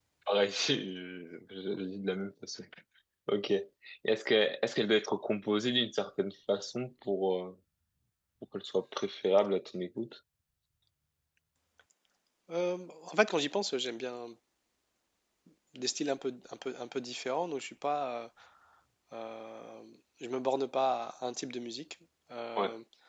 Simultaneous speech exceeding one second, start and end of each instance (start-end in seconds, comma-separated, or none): none